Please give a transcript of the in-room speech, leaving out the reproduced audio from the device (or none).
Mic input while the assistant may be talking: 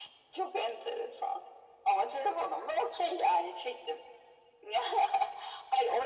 none